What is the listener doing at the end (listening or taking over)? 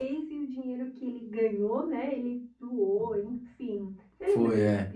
taking over